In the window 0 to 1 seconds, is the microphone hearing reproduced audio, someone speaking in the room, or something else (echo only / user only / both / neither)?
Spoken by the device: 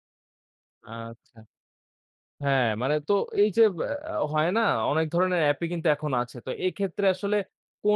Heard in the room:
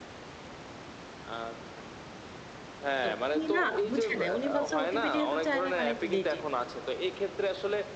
neither